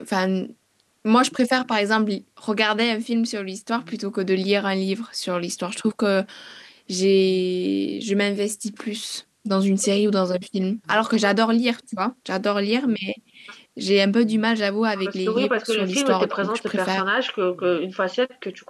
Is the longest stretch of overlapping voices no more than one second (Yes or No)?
No